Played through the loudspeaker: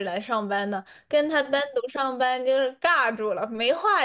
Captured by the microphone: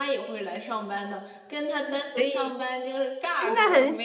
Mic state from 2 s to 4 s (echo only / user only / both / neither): both